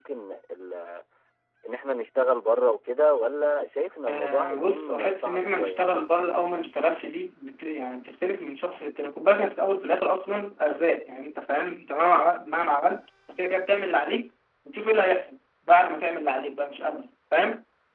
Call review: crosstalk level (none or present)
present